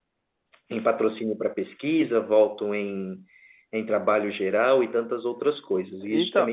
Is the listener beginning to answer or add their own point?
Yes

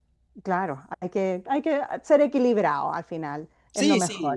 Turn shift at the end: Yes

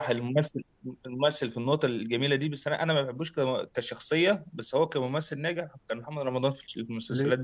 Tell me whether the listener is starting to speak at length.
Yes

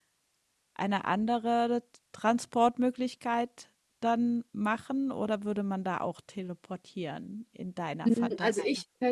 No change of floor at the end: No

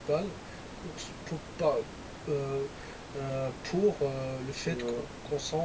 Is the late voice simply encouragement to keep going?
Yes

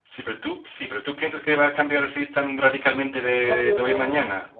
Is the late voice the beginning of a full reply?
Yes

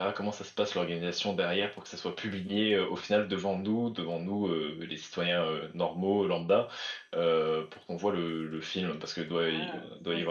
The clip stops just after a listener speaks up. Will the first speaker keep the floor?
No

